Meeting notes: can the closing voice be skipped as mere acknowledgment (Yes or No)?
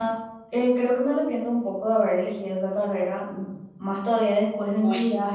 Yes